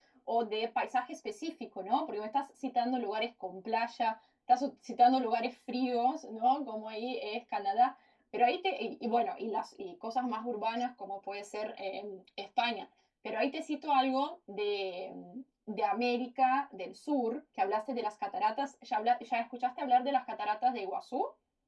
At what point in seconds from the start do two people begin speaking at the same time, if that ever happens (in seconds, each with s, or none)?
none